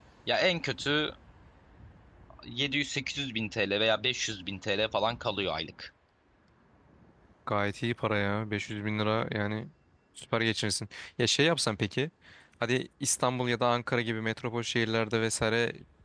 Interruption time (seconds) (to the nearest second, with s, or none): none